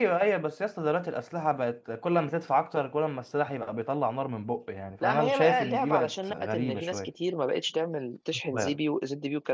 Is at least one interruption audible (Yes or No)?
Yes